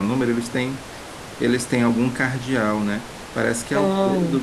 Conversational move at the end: listening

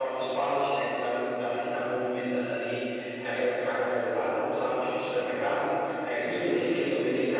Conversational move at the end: listening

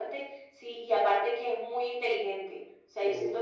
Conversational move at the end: listening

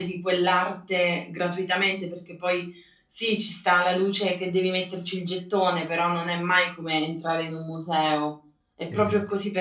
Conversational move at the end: listening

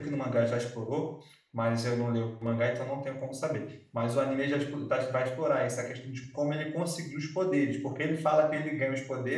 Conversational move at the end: listening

